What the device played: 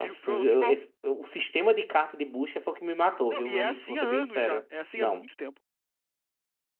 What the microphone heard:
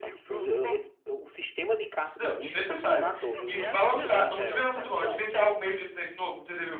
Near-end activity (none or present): present